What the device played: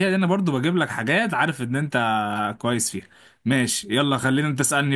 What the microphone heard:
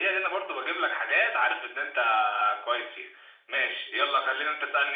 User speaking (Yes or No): No